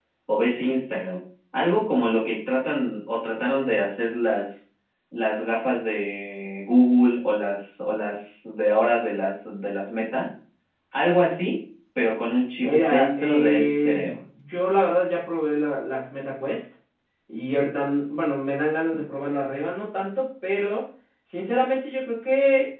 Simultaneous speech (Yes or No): Yes